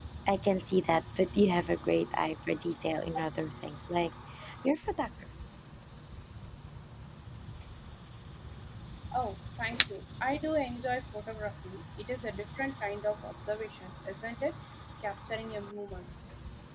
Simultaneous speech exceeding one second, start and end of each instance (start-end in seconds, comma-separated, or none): none